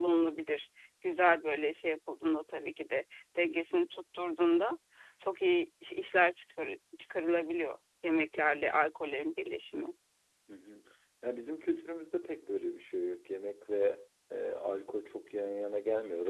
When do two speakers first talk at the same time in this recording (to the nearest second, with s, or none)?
none